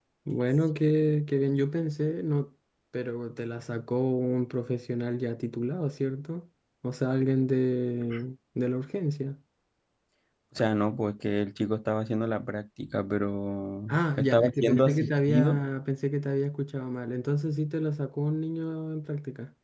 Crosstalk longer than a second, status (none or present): present